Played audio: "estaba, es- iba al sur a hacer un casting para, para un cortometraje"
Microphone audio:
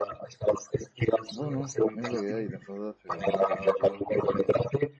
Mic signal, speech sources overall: both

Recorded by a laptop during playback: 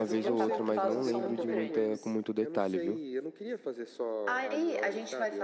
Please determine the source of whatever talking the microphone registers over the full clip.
both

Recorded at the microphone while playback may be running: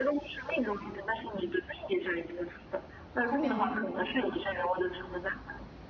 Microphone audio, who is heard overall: both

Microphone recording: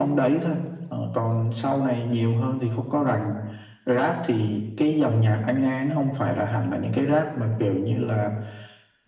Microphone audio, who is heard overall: echo only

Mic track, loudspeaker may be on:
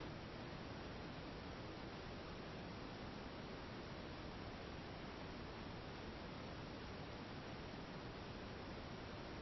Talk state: neither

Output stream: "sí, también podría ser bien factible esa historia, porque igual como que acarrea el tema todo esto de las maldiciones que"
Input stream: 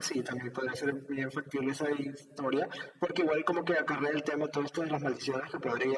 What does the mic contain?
echo only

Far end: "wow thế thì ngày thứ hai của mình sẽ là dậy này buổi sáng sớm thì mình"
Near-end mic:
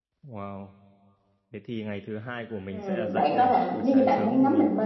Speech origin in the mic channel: both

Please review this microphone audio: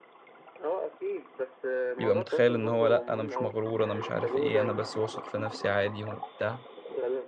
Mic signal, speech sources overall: both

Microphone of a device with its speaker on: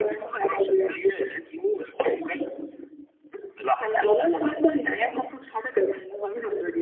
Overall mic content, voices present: echo only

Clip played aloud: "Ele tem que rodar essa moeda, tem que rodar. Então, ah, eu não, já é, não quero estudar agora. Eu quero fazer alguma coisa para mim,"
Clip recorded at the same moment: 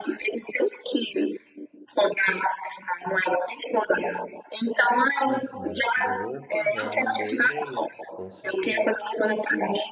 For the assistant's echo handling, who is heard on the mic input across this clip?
both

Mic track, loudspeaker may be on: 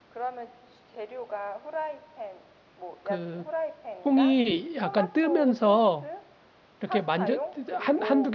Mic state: both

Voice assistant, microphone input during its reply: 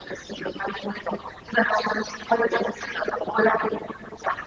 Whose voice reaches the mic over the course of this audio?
echo only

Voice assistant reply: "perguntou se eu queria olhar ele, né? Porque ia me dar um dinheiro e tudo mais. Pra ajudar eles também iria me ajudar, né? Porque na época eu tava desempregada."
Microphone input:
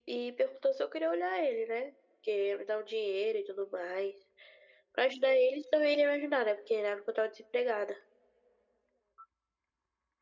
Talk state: echo only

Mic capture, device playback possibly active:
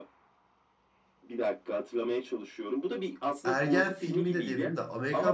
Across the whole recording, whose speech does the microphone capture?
both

